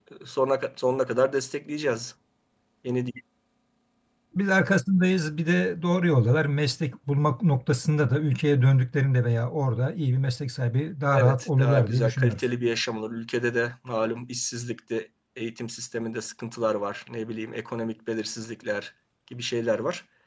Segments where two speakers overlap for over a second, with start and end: 11.1-12.4

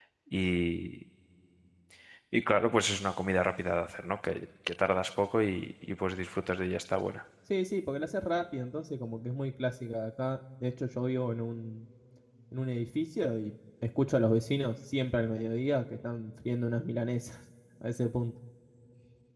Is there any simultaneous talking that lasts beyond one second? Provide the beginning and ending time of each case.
none

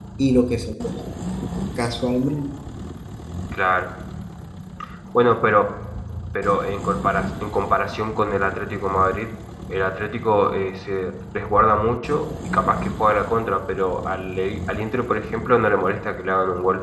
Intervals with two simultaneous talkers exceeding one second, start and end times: none

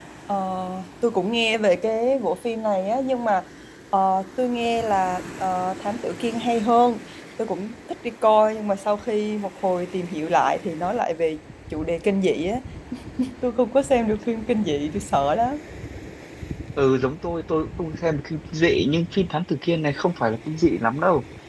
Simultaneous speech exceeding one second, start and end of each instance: none

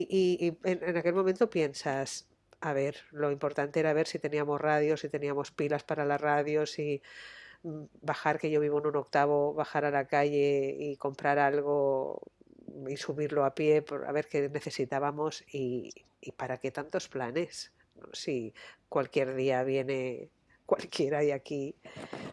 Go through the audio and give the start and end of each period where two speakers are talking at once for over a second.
none

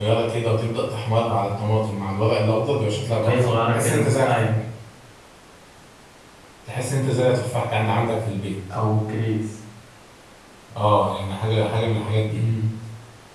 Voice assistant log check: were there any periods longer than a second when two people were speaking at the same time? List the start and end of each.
3.2-4.4

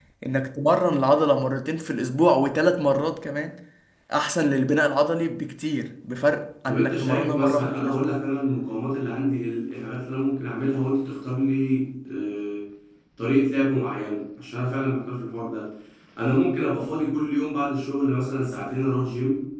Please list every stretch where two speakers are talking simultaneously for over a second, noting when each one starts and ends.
6.7-8.2

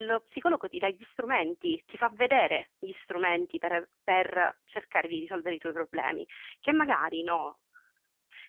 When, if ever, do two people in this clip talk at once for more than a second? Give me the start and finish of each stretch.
none

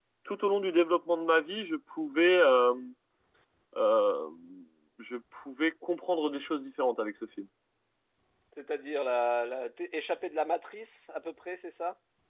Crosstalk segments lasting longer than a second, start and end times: none

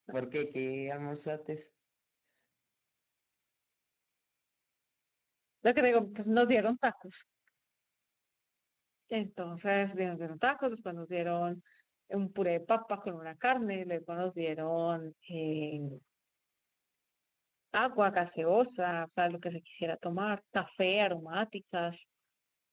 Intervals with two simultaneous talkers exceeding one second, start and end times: none

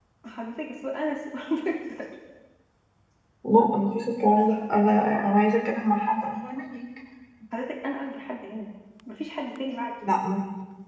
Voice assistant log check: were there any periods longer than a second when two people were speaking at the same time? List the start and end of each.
none

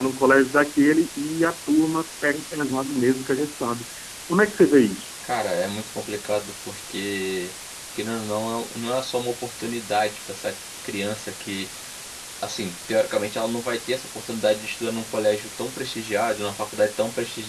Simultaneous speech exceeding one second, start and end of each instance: none

